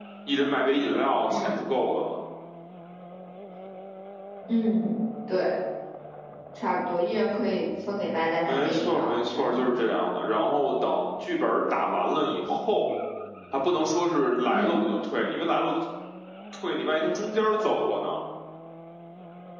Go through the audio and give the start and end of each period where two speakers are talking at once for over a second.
8.4-9.7

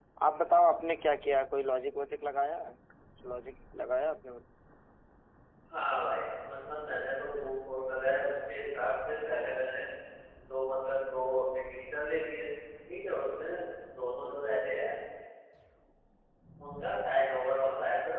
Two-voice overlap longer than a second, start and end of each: none

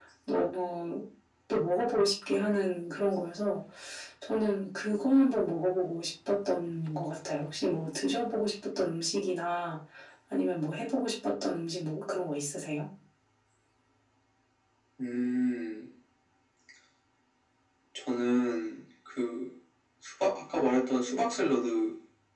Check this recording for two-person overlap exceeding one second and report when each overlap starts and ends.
none

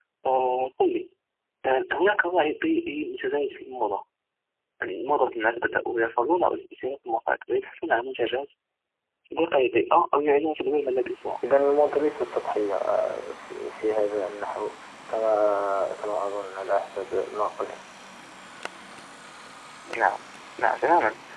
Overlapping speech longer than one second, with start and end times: none

